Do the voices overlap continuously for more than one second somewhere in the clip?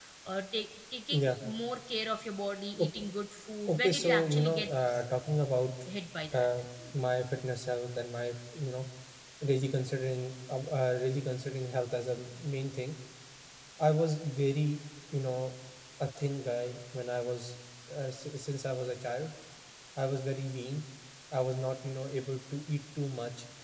Yes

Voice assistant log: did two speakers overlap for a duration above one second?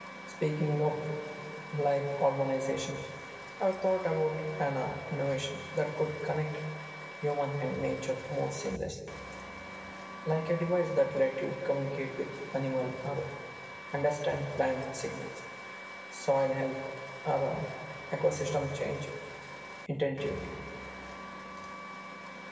No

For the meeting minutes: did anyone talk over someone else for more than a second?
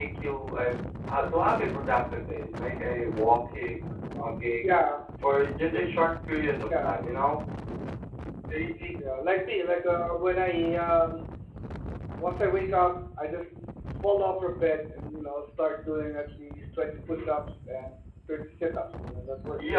No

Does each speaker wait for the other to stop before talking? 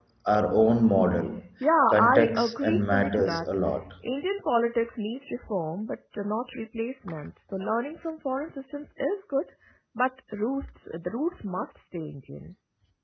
No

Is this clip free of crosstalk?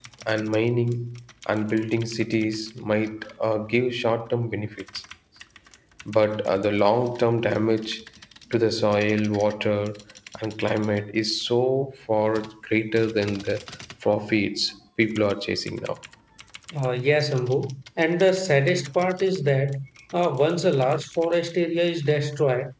Yes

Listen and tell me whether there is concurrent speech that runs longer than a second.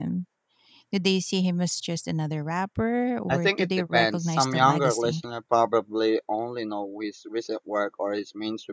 Yes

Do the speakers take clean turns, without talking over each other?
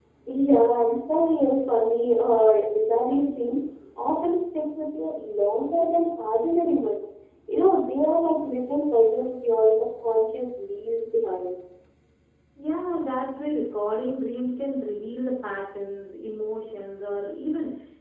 Yes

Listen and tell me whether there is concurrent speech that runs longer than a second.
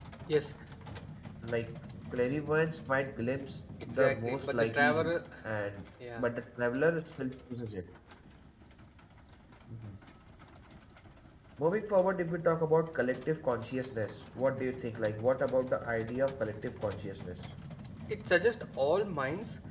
Yes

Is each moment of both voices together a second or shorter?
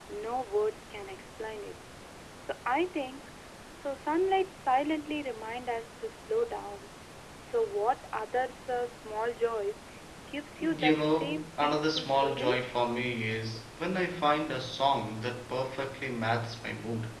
No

